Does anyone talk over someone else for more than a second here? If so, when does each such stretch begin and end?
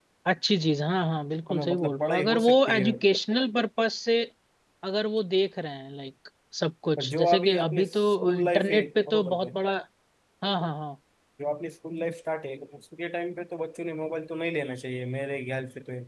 1.5-2.9, 7.0-9.5

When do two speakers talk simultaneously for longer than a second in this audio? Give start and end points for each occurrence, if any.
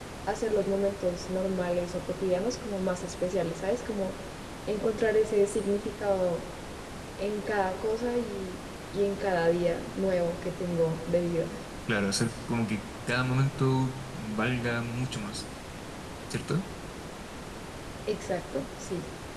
none

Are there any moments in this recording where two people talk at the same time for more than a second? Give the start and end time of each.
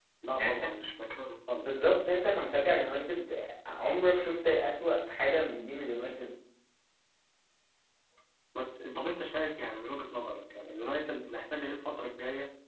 none

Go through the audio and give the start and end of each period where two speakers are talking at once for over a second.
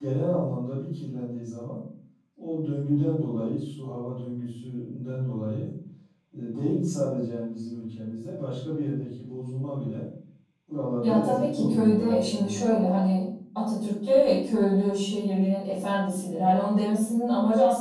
11.0-12.7

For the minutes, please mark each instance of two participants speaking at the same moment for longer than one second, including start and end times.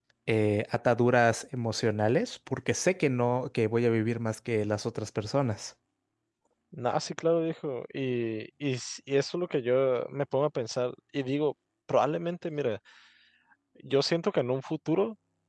none

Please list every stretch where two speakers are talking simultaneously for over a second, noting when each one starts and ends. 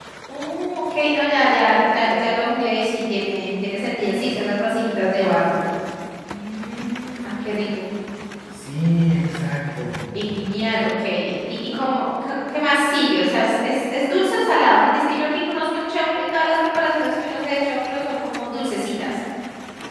none

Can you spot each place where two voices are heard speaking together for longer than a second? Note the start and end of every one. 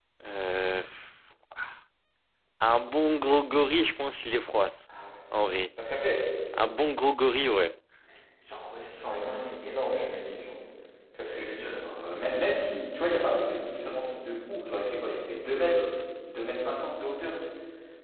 none

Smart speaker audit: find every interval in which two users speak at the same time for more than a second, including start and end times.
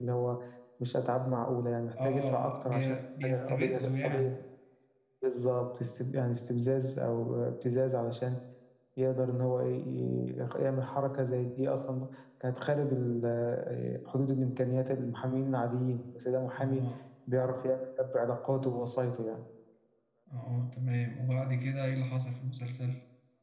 2.0-4.3

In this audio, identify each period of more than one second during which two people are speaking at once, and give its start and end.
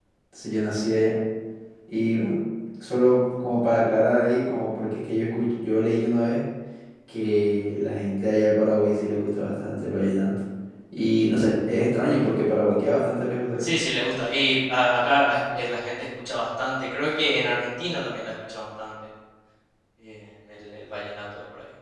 none

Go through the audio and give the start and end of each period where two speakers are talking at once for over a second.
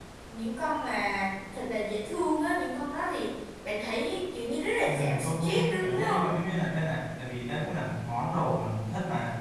4.8-6.2

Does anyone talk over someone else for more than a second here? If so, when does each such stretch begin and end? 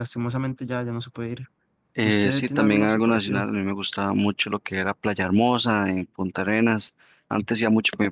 2.0-3.5

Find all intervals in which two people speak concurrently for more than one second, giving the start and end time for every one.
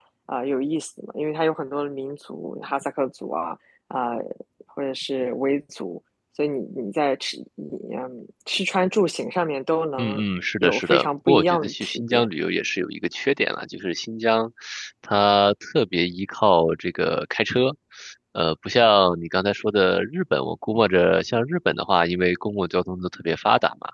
10.6-12.3

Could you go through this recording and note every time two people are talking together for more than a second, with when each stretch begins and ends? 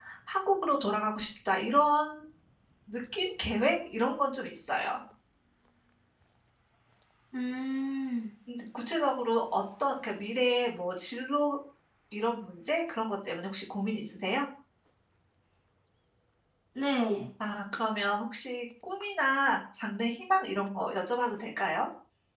none

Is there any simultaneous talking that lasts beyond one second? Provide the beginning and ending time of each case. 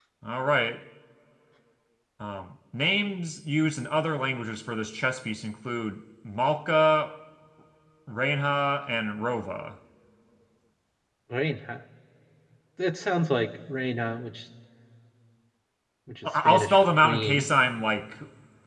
16.2-17.5

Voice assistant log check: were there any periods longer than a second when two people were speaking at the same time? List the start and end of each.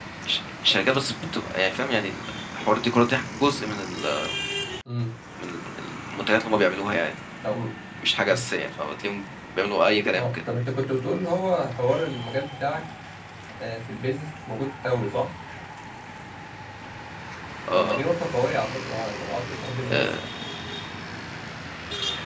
none

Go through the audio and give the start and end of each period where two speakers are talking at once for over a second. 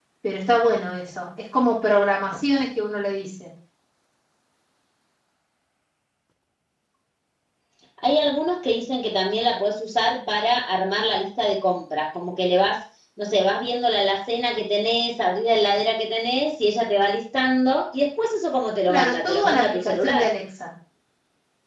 18.9-20.3

